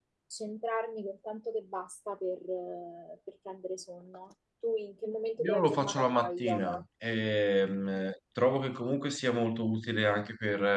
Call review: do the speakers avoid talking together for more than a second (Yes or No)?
No